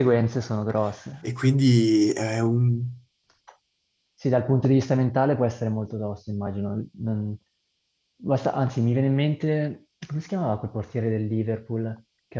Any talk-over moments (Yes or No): No